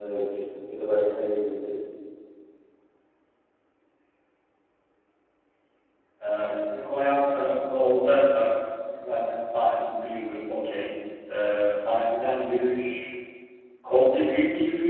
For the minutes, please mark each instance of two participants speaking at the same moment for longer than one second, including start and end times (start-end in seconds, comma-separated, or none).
none